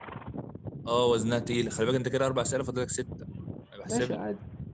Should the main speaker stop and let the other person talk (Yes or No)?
Yes